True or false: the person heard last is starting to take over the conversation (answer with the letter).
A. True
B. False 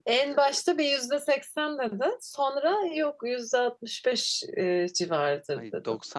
A